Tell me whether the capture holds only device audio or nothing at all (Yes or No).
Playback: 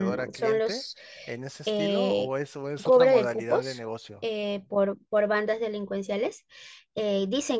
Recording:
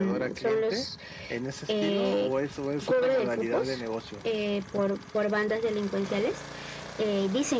Yes